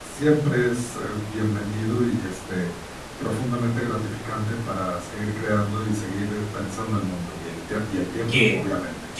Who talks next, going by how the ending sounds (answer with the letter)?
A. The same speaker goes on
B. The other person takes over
B